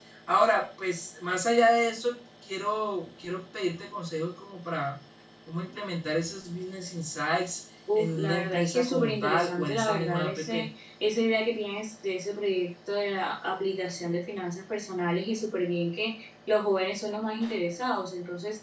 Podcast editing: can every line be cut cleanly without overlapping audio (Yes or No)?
No